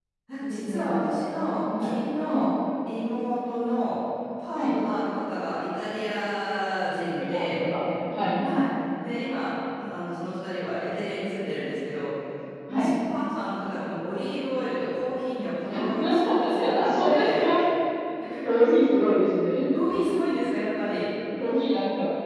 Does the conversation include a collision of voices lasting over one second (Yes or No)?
Yes